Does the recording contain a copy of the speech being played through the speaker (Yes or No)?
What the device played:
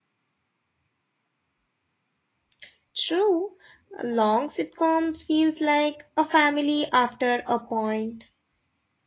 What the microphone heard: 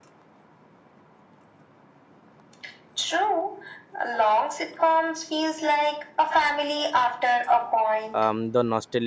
Yes